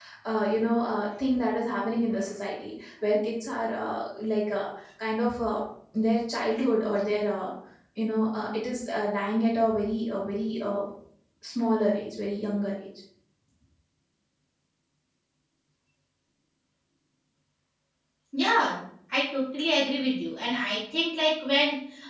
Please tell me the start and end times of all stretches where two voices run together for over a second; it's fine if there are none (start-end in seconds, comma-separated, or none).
none